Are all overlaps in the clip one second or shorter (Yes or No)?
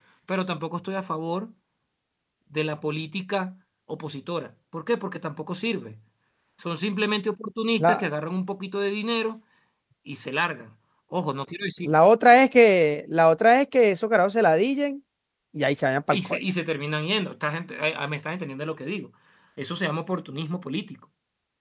Yes